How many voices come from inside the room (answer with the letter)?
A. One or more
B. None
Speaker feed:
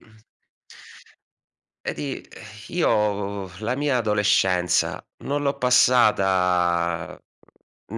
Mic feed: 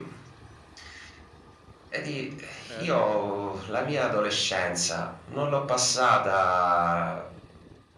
A